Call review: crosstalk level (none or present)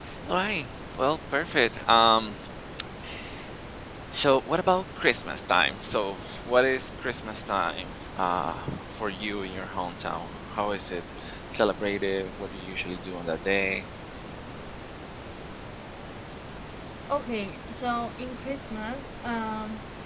none